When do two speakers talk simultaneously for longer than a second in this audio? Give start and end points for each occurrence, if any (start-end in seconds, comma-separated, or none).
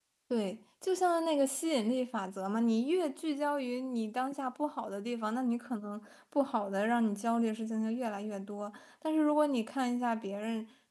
none